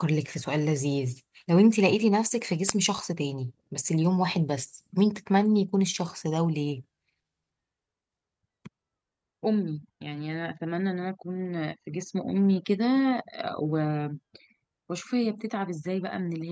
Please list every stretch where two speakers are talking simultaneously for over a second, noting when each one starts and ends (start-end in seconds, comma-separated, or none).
none